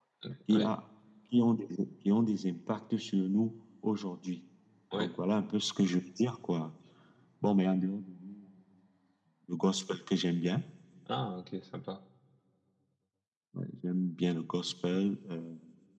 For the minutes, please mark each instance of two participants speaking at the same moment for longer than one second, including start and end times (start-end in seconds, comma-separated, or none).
none